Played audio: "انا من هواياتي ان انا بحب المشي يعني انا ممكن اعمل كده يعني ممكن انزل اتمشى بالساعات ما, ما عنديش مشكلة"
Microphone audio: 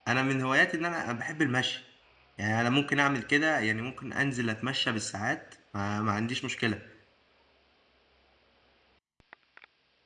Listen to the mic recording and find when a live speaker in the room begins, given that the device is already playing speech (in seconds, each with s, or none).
none